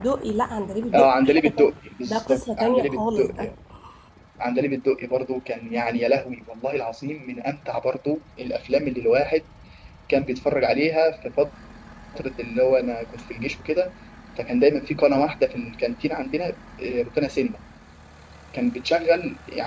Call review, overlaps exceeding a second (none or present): present